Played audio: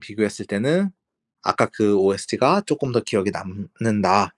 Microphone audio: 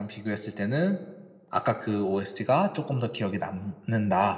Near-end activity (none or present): none